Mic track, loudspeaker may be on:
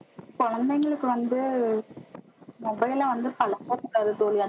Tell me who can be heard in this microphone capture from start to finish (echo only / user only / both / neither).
echo only